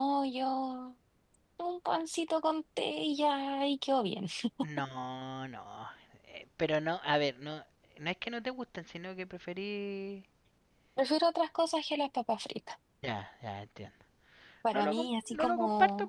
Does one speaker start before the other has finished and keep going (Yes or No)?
Yes